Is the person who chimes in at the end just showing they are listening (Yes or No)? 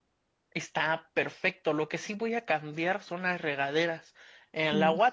Yes